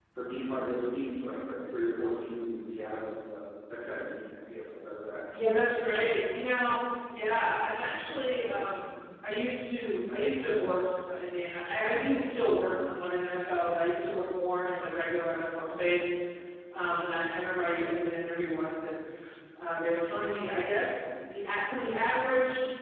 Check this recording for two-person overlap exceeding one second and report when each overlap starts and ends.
none

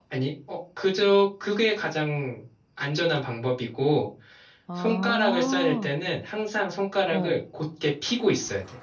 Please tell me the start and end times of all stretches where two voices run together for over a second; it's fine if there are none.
4.8-6.0

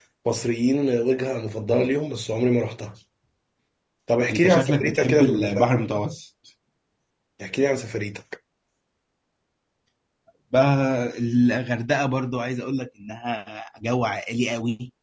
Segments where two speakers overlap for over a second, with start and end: 4.3-5.7

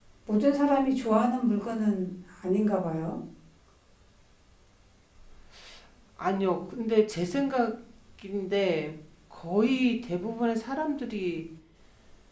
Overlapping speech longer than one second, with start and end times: none

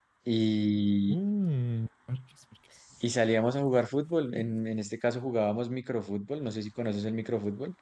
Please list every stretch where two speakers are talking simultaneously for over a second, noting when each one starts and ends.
none

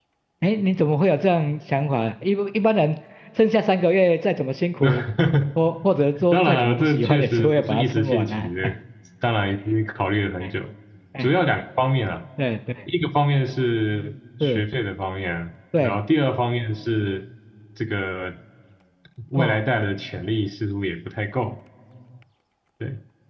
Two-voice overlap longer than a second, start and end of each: 6.3-8.5

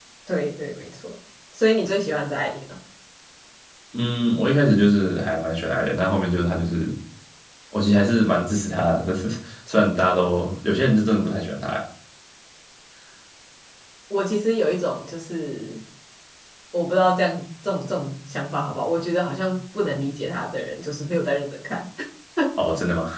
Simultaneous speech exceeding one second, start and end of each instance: none

